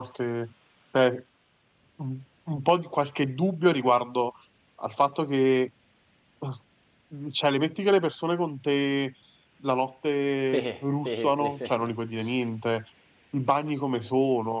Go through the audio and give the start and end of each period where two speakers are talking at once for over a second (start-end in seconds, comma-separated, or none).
10.5-11.9